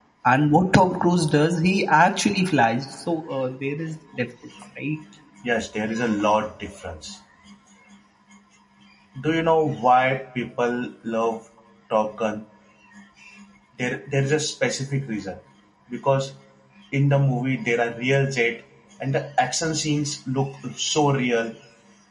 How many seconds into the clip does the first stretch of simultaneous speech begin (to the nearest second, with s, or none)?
none